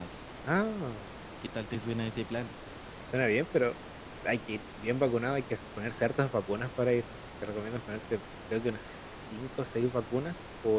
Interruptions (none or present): none